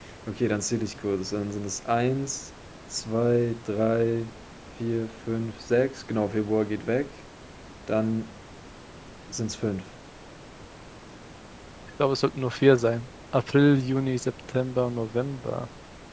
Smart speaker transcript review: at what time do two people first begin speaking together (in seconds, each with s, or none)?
none